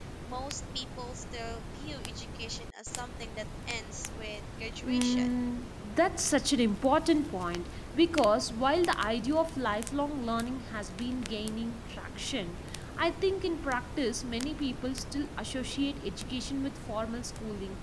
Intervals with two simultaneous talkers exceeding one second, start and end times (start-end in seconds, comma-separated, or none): none